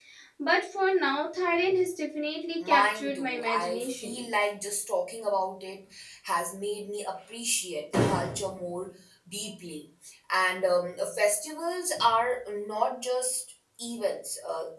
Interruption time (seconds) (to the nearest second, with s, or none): 3 s